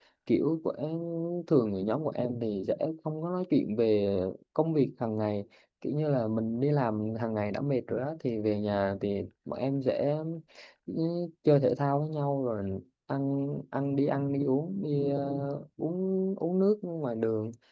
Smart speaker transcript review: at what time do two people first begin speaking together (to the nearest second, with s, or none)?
none